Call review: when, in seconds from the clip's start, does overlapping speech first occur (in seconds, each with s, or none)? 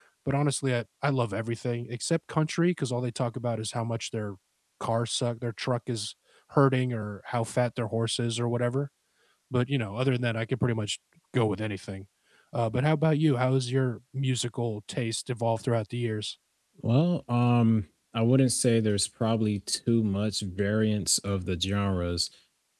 none